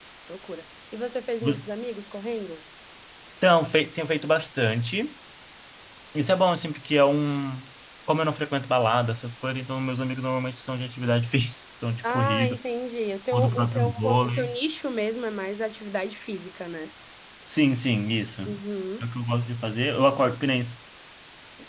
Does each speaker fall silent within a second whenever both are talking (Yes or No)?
No